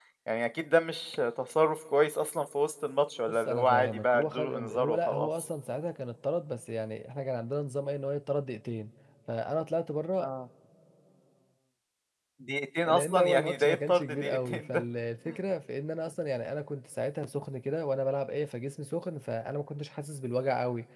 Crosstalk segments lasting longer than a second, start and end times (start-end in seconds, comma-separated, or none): 3.3-5.5, 12.8-14.8